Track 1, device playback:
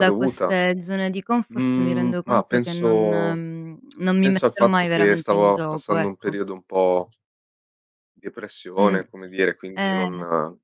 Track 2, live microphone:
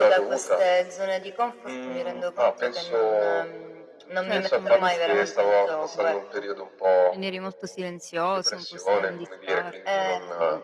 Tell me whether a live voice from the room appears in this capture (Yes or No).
Yes